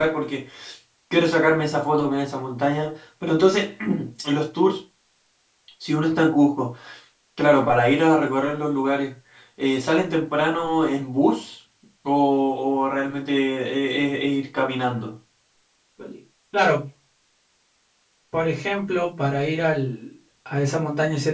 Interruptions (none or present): none